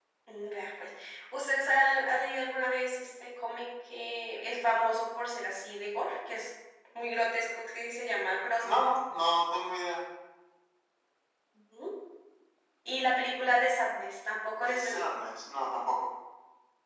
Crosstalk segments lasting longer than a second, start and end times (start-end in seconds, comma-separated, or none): none